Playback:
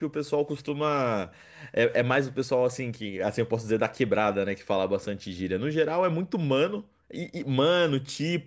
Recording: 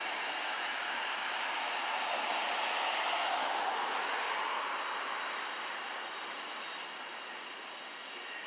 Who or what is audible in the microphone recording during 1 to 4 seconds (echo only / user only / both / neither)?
neither